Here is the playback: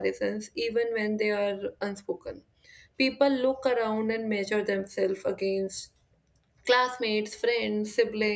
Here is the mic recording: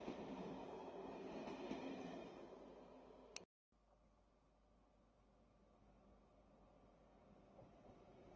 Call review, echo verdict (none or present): none